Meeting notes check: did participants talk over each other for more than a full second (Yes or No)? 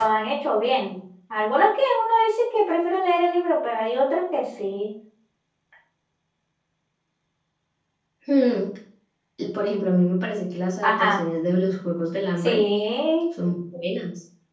No